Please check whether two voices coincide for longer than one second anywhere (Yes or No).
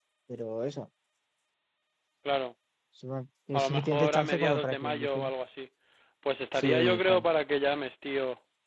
Yes